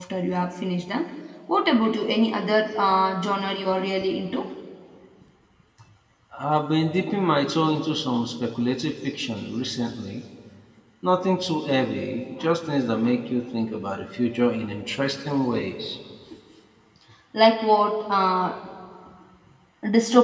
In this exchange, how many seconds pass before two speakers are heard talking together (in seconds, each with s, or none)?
none